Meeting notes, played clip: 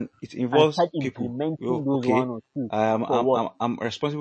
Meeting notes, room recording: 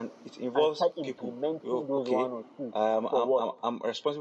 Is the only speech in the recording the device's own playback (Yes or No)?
Yes